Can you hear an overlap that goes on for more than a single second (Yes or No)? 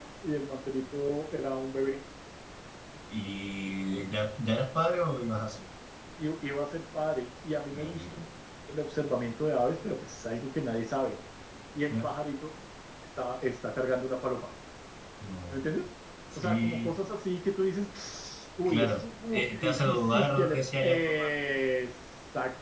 Yes